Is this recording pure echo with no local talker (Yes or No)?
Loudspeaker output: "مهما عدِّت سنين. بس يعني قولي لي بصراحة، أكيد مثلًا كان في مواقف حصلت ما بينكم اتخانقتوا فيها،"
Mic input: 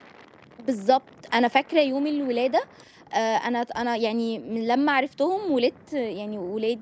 No